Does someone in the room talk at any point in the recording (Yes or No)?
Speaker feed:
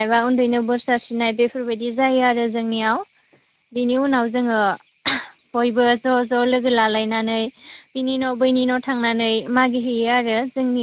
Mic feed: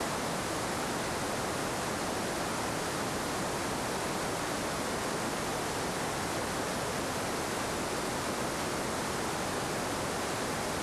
No